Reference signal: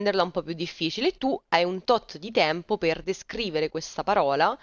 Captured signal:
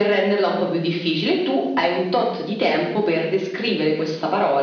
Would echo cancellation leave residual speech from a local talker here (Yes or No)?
No